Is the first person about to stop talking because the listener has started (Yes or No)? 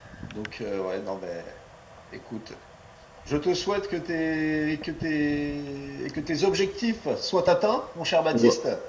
Yes